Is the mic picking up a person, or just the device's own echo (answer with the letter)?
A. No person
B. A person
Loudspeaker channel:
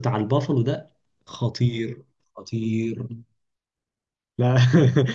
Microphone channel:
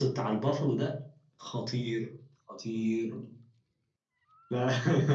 A